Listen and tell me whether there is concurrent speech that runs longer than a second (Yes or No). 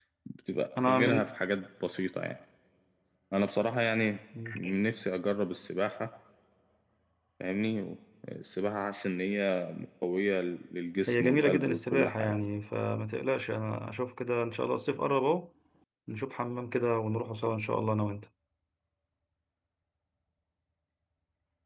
Yes